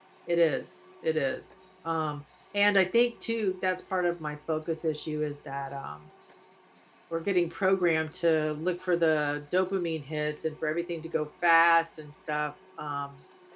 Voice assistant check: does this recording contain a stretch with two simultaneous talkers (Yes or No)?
No